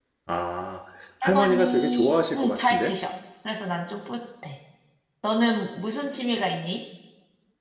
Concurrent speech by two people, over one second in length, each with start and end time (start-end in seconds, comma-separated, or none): 1.2-2.9